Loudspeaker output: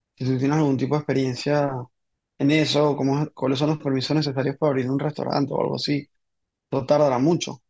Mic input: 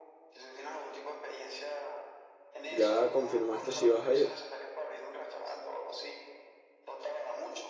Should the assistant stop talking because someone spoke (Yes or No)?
Yes